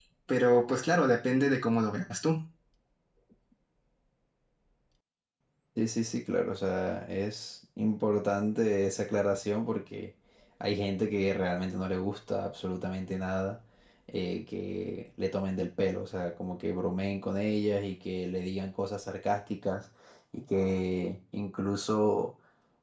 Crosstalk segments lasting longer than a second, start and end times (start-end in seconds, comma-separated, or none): none